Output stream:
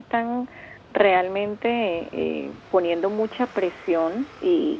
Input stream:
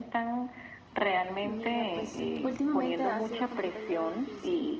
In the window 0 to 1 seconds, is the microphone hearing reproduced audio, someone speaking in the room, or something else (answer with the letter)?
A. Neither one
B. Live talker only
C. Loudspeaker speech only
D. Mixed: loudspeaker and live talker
C